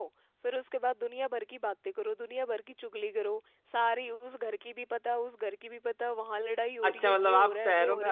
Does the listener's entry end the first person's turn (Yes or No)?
Yes